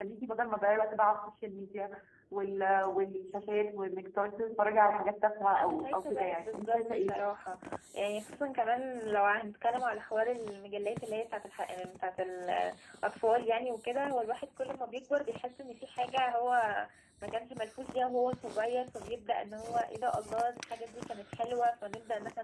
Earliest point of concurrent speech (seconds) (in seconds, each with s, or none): 5.5 s